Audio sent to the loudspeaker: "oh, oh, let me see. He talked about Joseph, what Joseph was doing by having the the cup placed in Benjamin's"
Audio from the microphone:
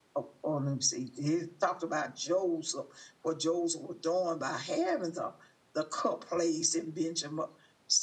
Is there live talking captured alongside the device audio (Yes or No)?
No